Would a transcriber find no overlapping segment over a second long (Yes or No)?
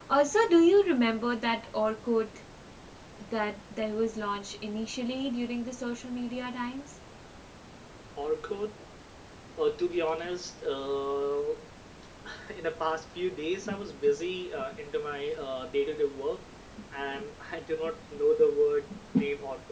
Yes